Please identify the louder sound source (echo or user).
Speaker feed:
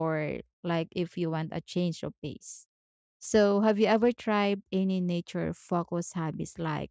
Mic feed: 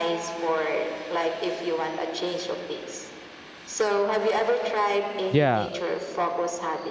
user